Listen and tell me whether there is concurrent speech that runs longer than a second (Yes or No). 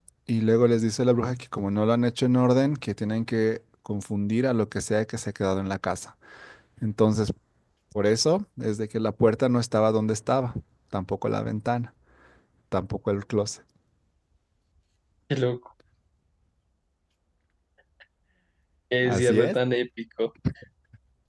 No